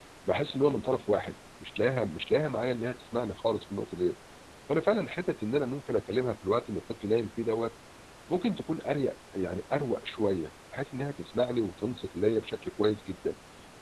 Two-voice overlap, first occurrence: none

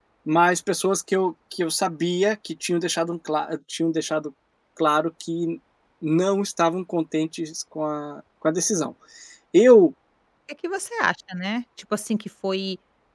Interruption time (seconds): none

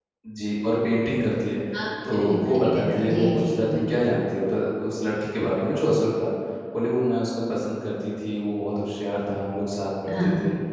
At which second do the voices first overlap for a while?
2.1 s

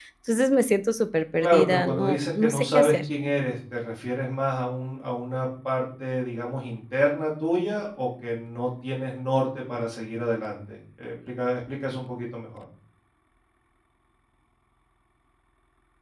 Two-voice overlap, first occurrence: 1.4 s

